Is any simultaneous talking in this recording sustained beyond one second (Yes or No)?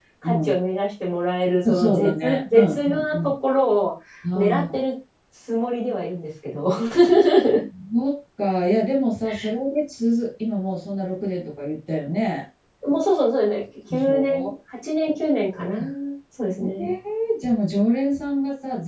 Yes